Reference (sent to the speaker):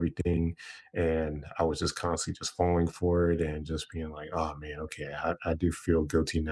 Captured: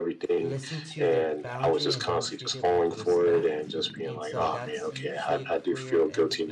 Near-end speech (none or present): present